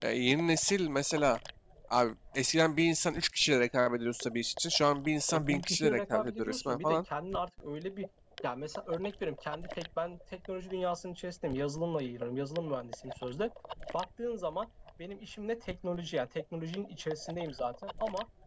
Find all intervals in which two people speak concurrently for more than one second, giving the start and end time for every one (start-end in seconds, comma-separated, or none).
5.3-7.0